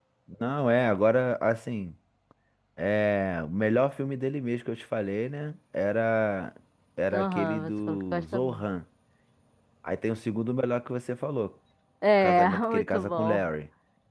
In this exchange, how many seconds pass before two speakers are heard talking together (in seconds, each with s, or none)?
7.1 s